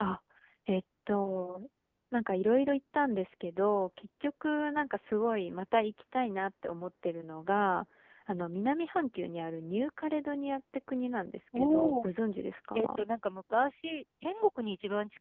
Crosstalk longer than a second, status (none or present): none